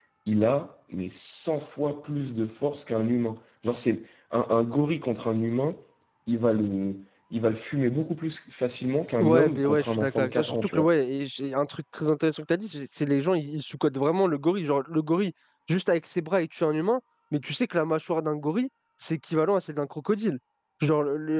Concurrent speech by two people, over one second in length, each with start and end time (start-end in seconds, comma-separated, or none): 9.2-10.9